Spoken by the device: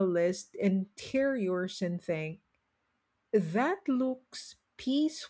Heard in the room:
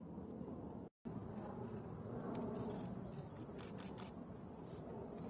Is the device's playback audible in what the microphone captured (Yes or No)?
No